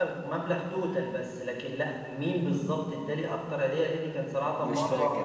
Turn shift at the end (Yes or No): No